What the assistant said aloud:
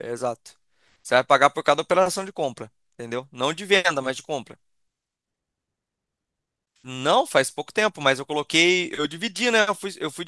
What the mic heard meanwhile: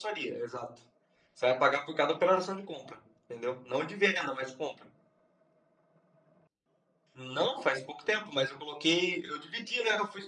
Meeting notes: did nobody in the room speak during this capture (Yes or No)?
Yes